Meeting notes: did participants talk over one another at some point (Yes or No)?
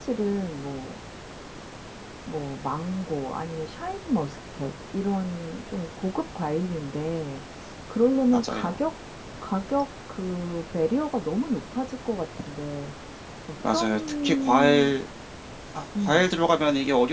Yes